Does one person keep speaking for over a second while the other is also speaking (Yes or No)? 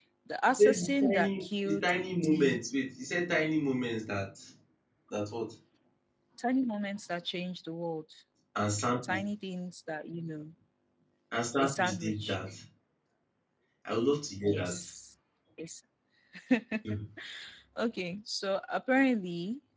Yes